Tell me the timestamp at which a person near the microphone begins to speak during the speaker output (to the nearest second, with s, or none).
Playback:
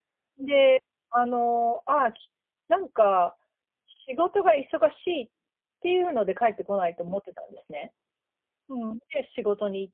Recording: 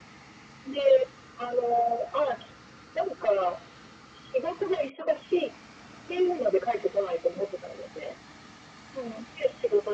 none